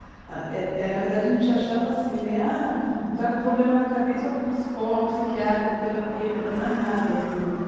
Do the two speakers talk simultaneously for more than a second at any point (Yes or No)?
No